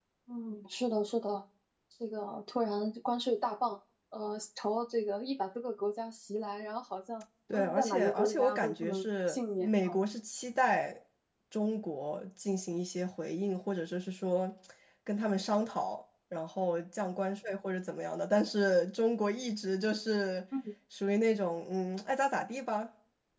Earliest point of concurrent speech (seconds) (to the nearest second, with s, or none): 8 s